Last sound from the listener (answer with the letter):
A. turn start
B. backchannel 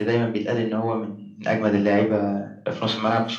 A